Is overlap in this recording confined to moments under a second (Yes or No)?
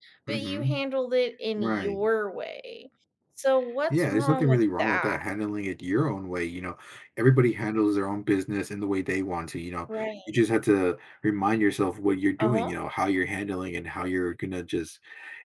No